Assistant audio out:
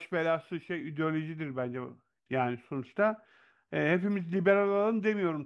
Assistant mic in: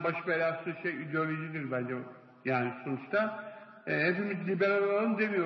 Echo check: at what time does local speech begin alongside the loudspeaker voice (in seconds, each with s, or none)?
none